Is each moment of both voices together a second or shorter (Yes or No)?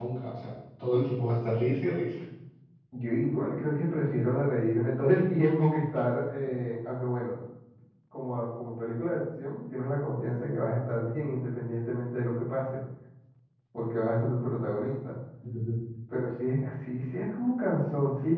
Yes